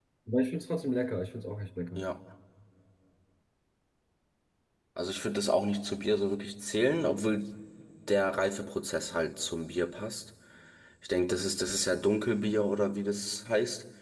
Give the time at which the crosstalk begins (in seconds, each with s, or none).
none